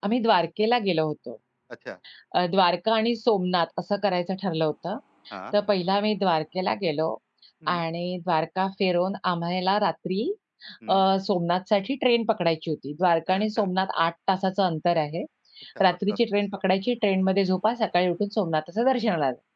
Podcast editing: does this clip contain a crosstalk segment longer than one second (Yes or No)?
No